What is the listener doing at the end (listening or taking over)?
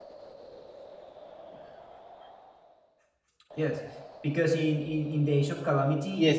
taking over